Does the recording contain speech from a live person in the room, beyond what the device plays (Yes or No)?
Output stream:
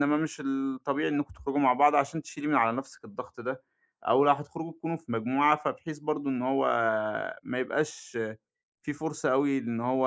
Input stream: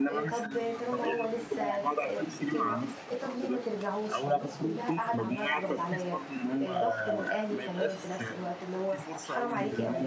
Yes